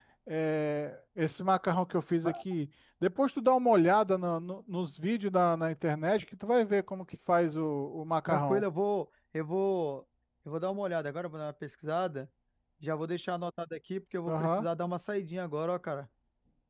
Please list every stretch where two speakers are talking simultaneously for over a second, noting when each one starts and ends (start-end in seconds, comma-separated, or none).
none